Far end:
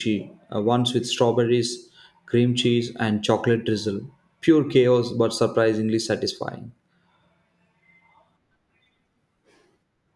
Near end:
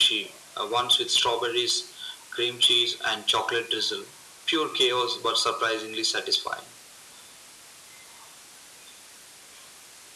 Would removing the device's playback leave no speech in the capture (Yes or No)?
Yes